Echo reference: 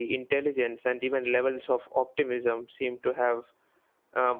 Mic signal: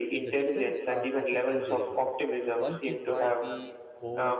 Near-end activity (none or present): present